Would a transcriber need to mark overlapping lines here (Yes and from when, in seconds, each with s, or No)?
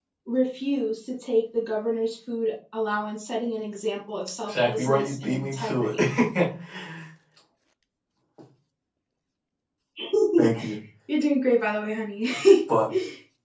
Yes, from 4.5 s